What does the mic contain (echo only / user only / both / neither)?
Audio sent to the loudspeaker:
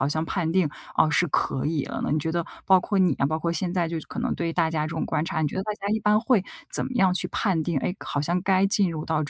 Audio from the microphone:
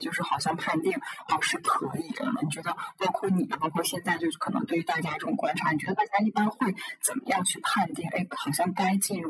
echo only